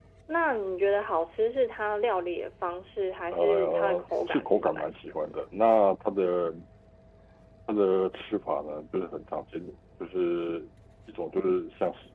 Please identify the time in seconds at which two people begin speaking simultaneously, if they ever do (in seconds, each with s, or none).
3.3 s